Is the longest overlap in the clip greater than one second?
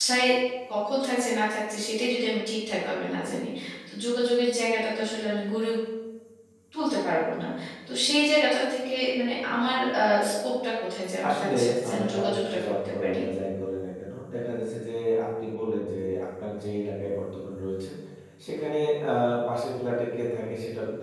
Yes, from 11.2 s

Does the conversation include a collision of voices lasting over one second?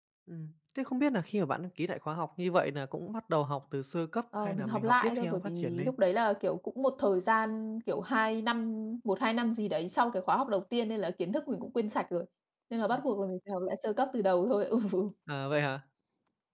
Yes, from 4.3 s

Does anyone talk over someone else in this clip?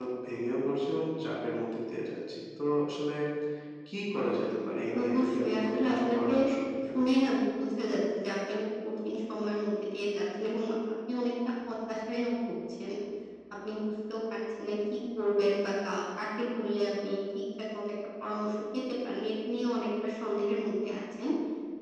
Yes, from 4.9 s

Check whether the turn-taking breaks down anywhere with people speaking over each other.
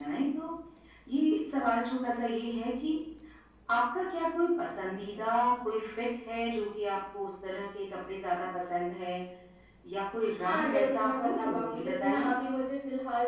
Yes, from 10.4 s

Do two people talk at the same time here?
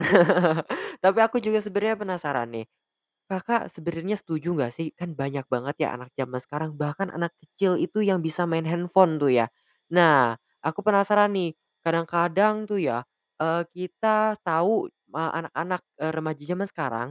No

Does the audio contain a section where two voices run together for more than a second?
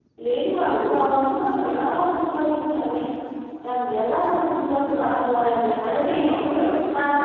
Yes, from 5.0 s

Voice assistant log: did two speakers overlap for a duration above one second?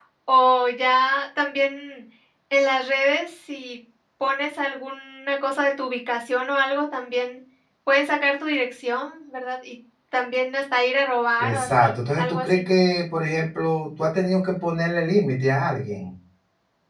Yes, from 11.4 s

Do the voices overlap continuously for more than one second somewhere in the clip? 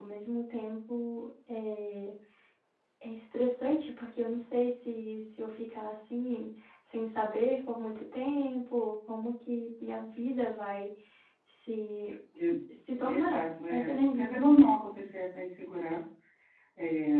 Yes, from 12.9 s

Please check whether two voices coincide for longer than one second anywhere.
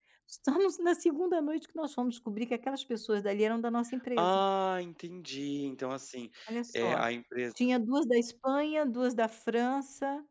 No

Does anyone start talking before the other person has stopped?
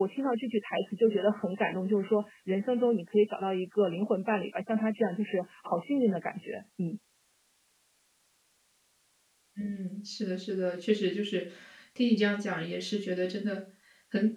No

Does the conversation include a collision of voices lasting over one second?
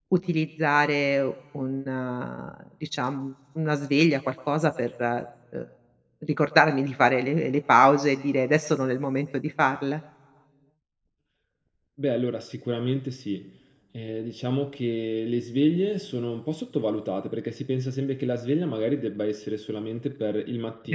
No

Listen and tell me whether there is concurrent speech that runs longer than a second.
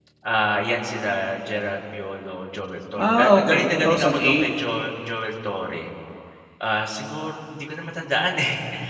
Yes, from 3.0 s

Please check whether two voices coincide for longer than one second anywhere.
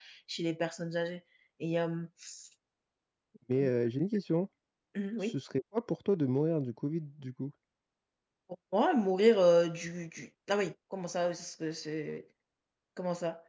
No

